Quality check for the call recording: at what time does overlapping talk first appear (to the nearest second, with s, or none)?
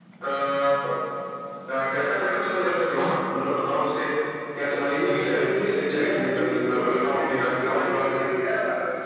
5 s